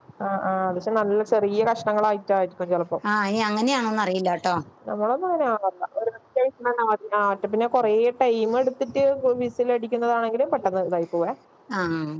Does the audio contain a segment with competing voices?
No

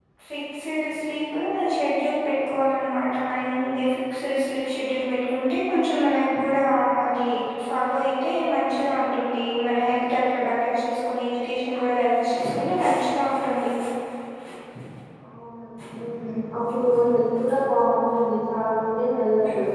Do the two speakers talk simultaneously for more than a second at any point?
No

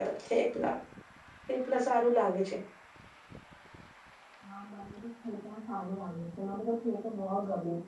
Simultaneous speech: No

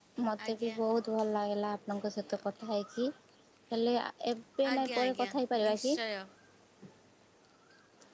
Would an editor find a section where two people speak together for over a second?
Yes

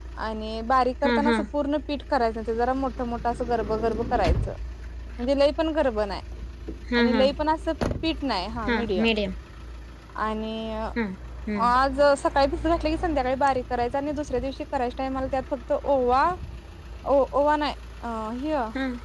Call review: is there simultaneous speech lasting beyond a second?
No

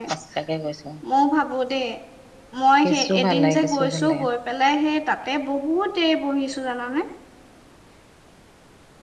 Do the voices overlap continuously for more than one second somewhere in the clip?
Yes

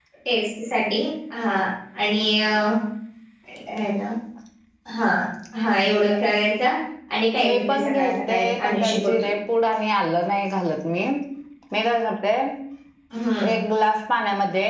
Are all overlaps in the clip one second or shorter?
No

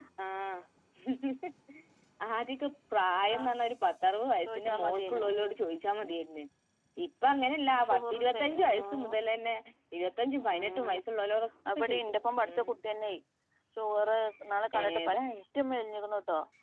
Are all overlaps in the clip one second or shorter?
No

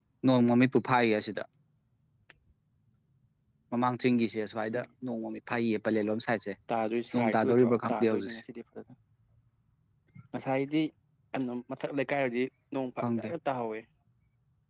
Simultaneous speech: Yes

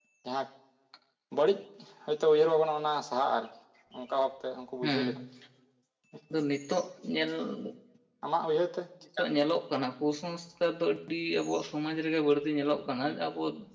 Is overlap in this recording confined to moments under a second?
Yes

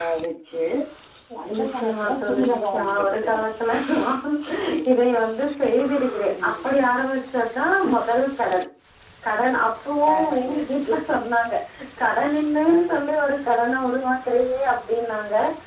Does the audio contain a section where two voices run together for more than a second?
Yes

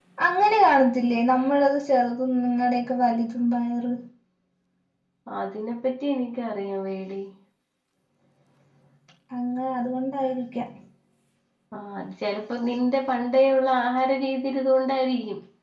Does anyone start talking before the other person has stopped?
No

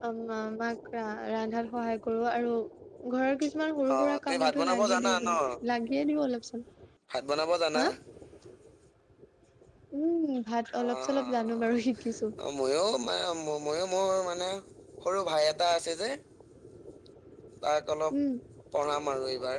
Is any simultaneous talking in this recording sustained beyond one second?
Yes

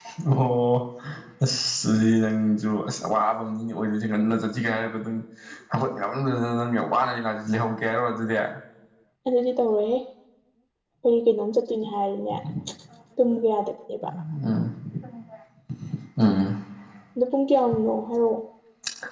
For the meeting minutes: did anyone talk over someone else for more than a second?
No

